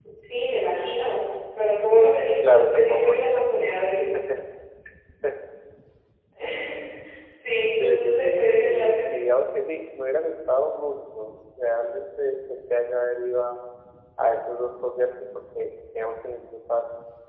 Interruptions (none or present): present